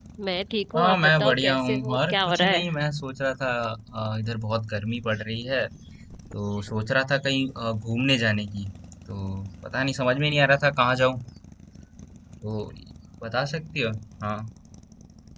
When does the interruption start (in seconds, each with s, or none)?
0.8 s